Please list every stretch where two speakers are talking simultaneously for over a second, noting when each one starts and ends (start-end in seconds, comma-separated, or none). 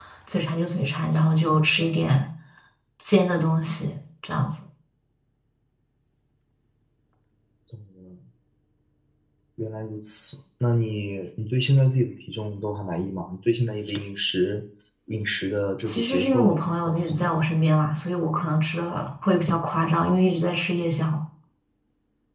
15.8-17.5